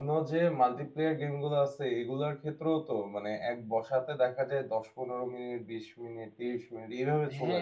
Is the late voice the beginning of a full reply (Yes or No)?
Yes